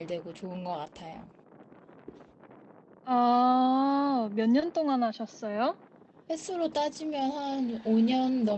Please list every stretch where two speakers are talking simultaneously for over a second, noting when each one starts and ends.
none

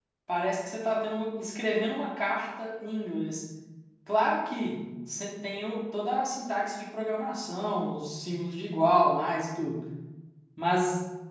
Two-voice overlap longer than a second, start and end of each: none

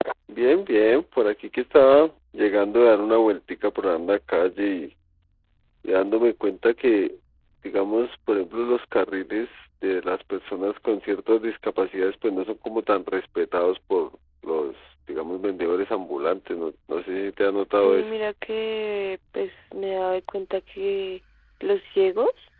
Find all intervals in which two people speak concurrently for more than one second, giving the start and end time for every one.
none

